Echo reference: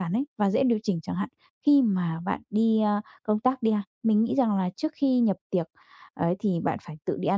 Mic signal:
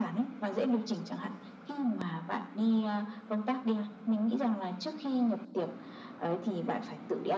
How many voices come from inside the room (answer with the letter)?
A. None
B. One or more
A